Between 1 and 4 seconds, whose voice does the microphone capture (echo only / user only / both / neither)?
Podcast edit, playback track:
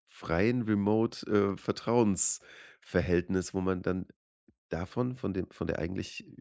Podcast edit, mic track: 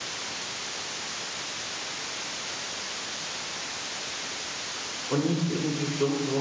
neither